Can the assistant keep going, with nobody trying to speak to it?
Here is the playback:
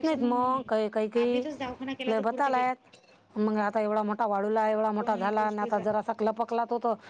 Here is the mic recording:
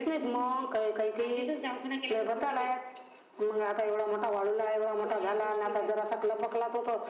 Yes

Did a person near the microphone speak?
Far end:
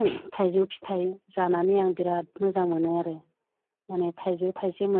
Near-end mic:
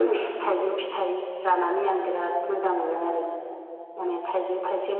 No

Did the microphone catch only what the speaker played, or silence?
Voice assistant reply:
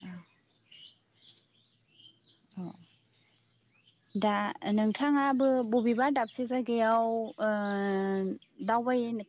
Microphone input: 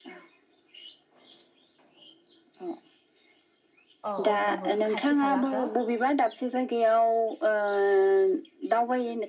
No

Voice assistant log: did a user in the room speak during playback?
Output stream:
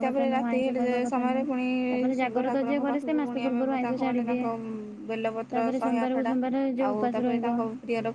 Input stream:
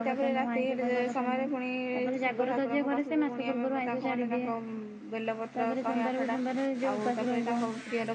No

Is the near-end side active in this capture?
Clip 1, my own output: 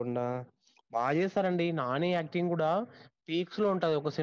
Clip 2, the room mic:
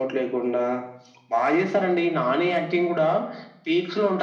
No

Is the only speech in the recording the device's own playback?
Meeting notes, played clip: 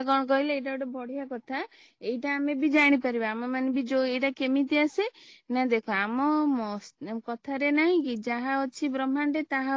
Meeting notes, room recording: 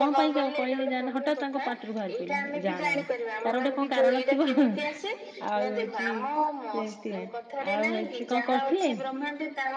No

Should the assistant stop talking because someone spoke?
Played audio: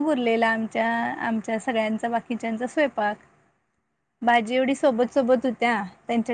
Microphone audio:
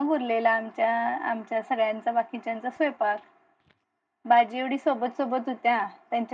No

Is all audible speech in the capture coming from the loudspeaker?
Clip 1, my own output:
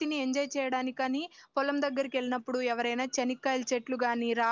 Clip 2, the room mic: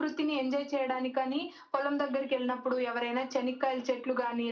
Yes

